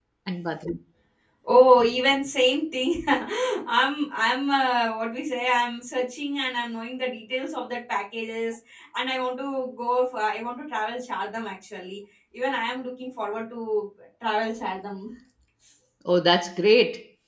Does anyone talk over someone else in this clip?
No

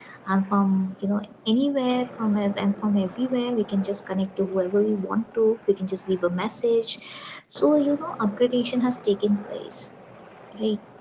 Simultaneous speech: No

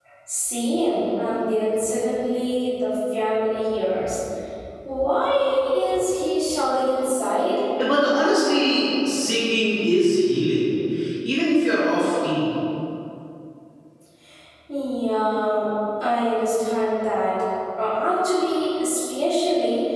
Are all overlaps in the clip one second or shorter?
Yes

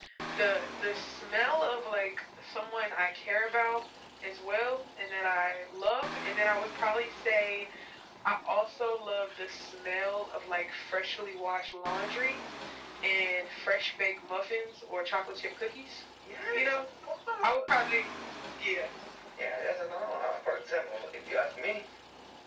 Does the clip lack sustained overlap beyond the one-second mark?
Yes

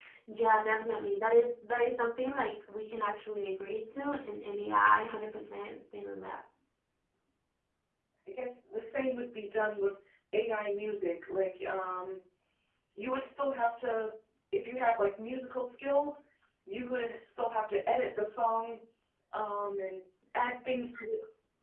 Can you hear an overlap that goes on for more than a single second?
No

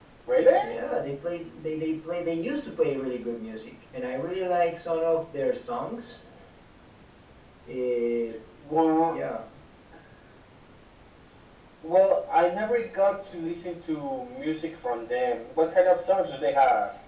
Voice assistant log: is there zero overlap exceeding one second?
Yes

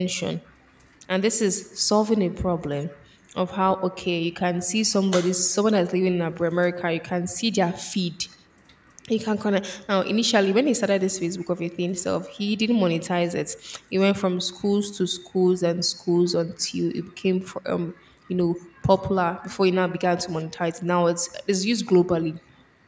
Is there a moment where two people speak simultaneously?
No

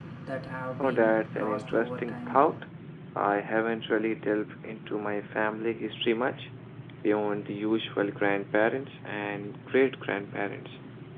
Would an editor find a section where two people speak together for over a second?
Yes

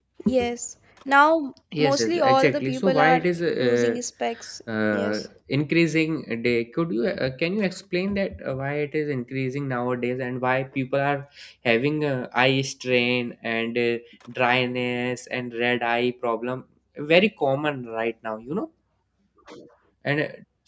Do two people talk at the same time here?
Yes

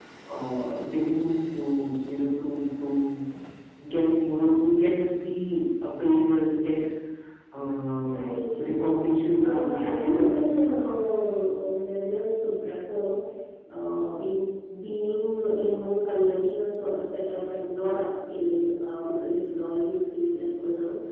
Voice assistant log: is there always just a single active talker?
No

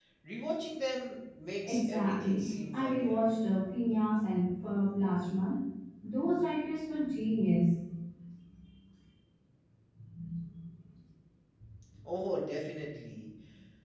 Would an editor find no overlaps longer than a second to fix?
No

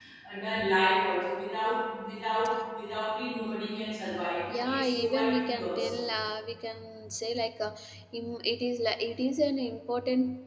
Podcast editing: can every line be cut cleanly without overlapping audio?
No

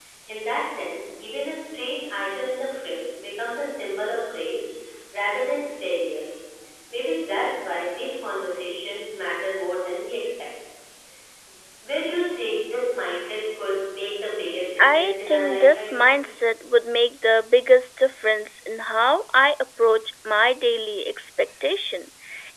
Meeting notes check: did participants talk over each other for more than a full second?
Yes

